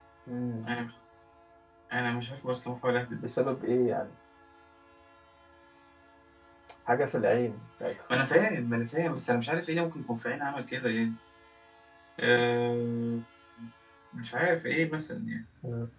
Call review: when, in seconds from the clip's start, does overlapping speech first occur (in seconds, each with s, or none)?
none